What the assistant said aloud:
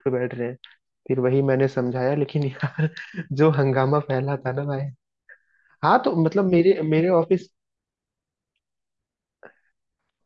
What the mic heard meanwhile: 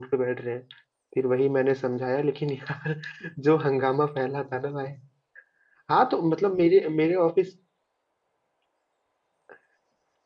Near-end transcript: none

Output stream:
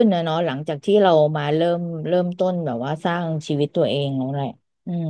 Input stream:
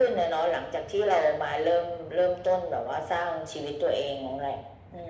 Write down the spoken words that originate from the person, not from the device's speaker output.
none

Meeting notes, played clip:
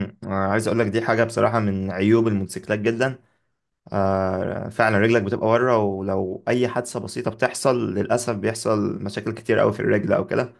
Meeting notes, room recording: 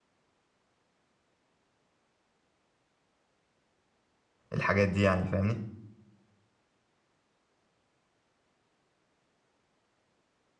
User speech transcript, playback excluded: الحاجات دي يعني فاهمني

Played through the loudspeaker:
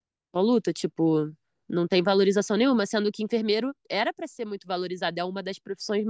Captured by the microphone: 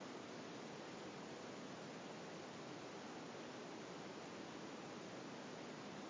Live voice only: none

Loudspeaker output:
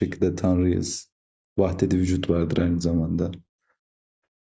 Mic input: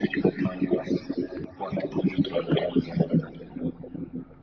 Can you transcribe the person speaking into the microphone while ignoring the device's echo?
none

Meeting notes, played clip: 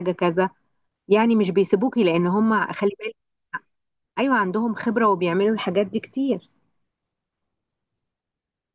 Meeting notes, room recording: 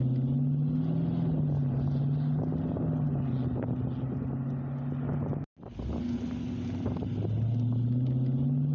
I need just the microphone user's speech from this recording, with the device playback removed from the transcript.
none

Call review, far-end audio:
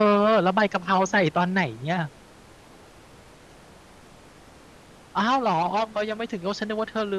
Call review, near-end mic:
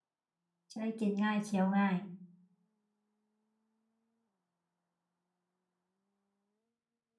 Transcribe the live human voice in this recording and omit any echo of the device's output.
จะได้กินง่ายเคี้ยวง่าย

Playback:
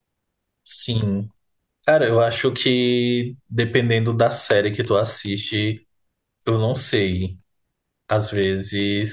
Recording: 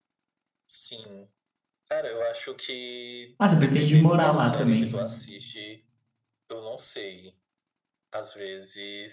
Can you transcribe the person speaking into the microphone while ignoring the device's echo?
Ah, você pretende morar lá também.

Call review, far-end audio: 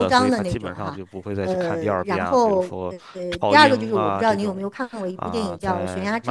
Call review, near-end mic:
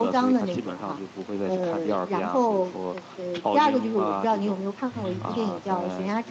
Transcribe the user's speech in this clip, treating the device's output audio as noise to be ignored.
嗯哼，

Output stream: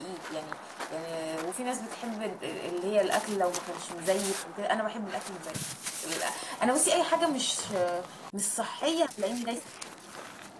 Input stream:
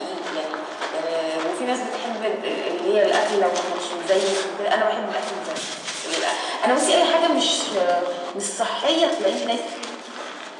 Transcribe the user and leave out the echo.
none

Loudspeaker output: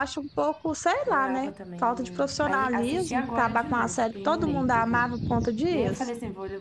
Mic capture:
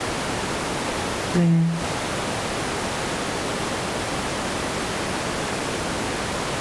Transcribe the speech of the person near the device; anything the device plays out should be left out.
é.

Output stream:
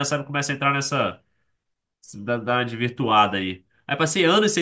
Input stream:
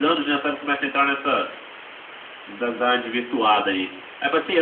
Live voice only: none

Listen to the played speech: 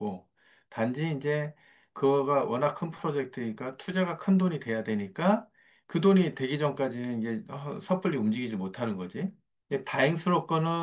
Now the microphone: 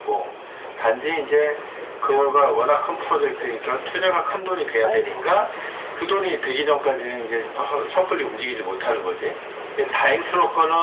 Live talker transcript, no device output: 아이고,

